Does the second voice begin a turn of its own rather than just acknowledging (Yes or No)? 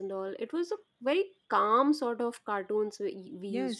Yes